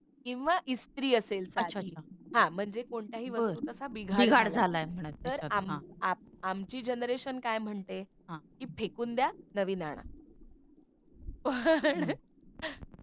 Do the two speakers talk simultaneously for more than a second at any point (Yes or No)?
No